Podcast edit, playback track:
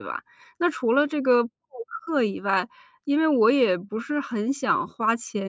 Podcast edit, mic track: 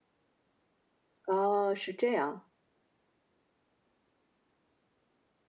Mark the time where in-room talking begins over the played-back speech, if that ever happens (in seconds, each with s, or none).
1.2 s